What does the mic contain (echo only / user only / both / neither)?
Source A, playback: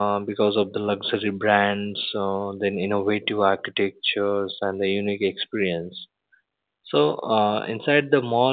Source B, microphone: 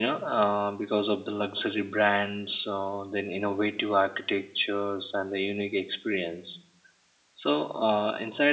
echo only